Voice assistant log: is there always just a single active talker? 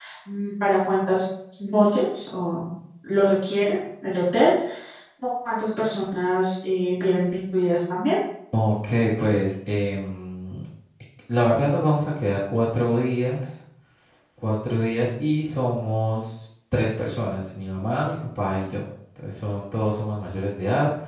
Yes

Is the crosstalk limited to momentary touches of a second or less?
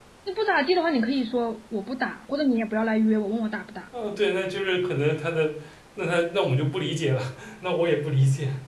Yes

